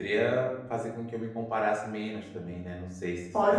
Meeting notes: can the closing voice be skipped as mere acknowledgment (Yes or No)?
No